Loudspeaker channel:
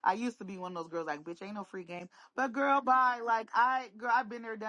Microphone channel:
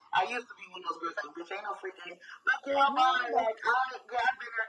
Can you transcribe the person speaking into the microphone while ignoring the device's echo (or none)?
no, that's